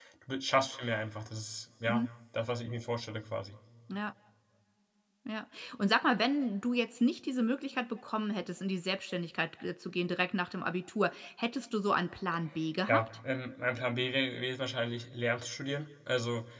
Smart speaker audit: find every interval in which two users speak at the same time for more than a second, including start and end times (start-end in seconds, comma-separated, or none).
none